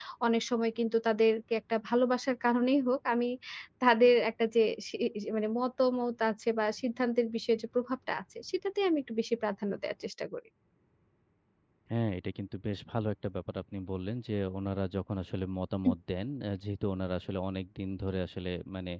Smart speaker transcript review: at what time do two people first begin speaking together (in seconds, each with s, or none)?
none